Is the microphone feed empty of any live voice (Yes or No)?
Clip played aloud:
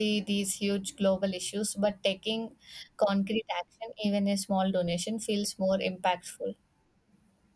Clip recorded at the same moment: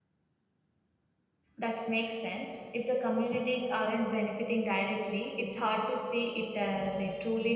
No